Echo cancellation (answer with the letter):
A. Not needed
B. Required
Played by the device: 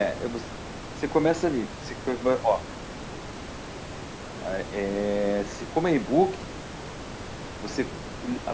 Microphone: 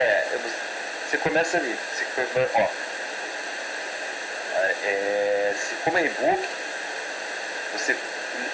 B